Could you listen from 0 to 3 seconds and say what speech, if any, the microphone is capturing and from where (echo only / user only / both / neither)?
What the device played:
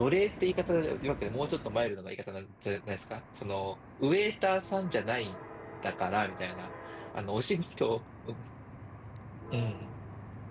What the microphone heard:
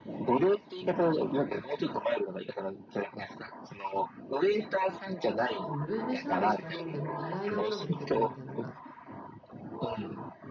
echo only